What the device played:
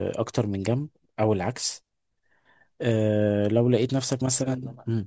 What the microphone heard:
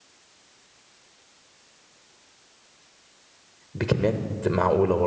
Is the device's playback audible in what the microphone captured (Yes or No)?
No